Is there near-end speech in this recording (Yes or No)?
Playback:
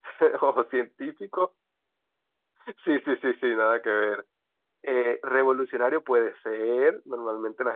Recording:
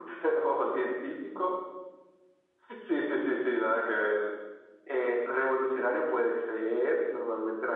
No